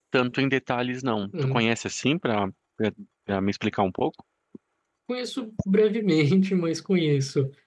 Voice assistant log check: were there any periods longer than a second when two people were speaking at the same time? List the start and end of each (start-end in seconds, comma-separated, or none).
none